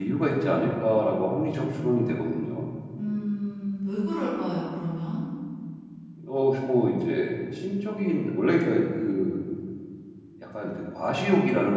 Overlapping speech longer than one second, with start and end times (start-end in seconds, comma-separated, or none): none